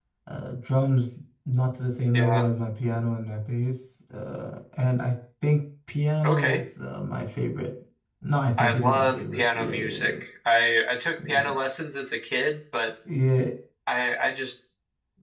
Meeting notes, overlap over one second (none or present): present